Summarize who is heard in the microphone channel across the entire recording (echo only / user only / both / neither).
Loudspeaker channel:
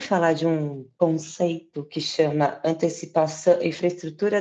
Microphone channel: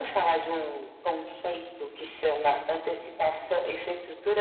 echo only